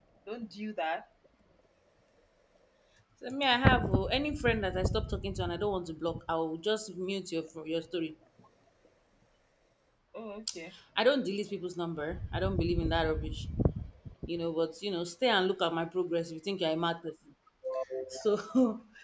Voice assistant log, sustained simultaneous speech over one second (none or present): none